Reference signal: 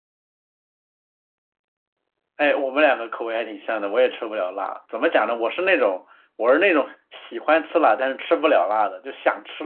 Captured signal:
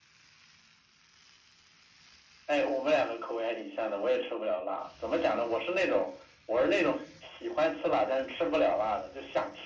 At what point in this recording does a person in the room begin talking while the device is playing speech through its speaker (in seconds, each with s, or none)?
none